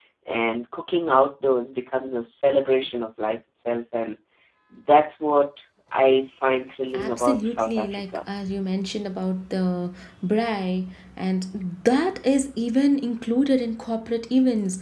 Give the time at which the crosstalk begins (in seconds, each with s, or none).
6.9 s